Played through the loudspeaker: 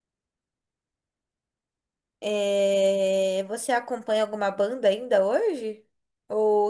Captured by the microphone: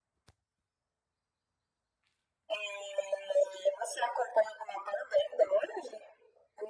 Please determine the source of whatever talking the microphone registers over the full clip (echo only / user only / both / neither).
echo only